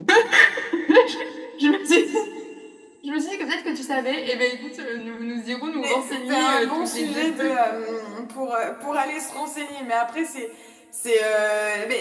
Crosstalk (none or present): present